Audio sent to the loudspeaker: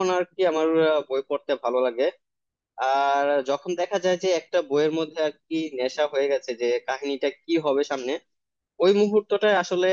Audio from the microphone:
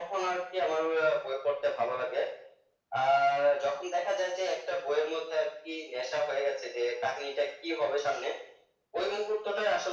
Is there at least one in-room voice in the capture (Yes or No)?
No